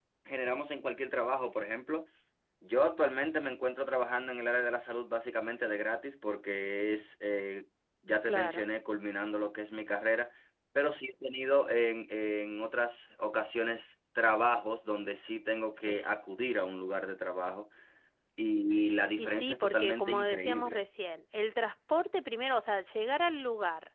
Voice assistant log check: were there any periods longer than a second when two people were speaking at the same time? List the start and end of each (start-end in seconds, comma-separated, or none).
19.2-20.8